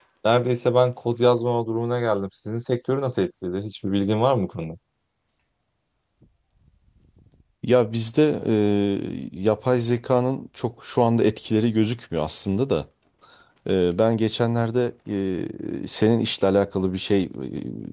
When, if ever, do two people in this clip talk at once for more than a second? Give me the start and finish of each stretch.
none

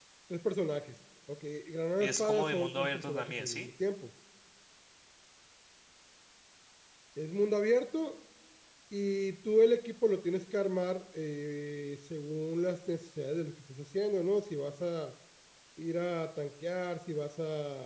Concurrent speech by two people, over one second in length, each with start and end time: 2.0-3.7

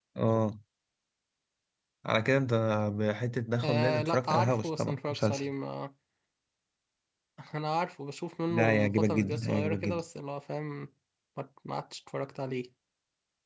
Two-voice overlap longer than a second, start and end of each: 3.6-5.5, 8.5-10.0

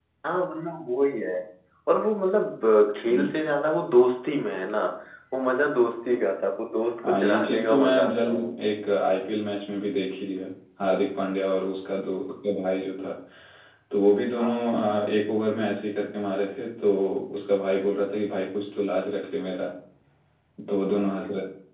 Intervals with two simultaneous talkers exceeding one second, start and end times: 7.1-8.5

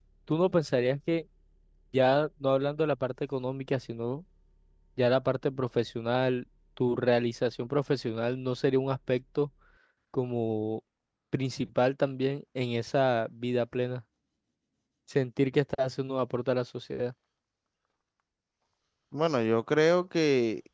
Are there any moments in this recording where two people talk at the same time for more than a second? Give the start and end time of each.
none

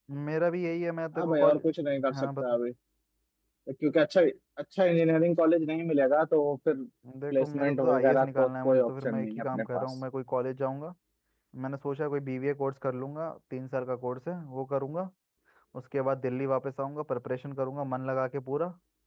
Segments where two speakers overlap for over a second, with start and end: 7.3-9.8

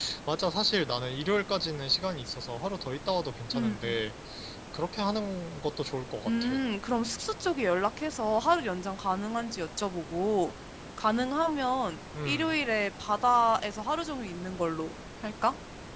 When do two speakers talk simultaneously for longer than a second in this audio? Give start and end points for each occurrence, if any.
none

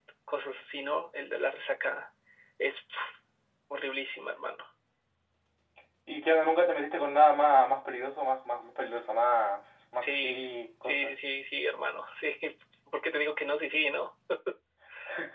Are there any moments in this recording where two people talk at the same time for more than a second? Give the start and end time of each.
none

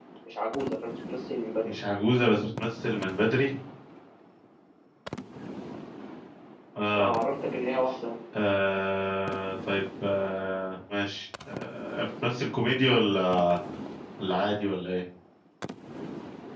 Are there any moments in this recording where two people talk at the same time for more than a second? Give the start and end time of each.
none

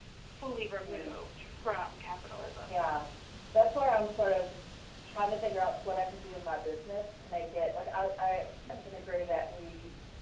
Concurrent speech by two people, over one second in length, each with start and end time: none

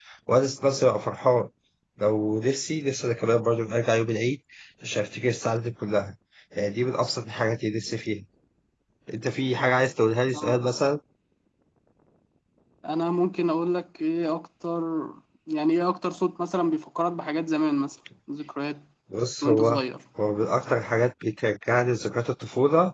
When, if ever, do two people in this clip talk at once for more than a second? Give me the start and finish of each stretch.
none

